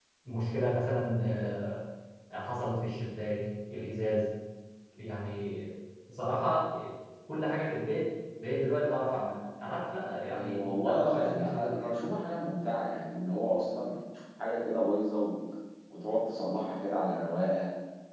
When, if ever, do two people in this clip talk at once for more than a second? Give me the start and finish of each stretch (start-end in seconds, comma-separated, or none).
10.3-11.9